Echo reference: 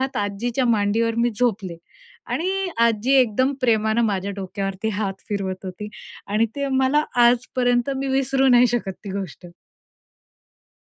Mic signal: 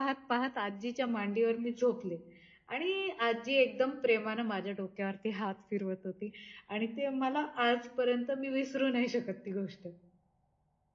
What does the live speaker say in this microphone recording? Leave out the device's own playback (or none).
none